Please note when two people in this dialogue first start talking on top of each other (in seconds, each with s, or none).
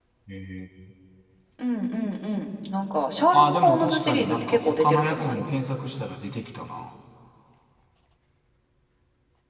3.3 s